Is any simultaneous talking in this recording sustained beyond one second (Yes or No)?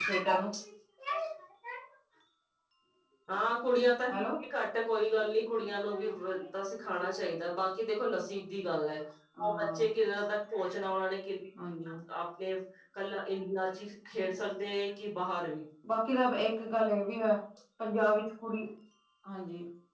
No